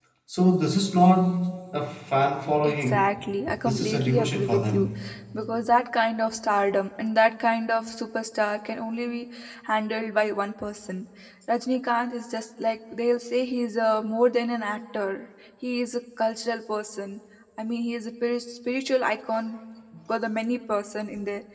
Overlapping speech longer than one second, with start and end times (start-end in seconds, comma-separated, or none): 3.6-4.9